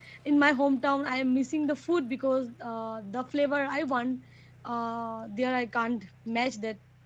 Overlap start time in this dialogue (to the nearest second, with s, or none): none